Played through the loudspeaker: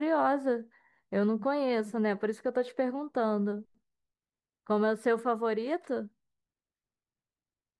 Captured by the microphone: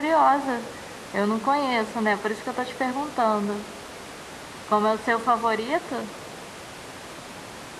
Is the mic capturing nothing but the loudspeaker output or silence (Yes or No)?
Yes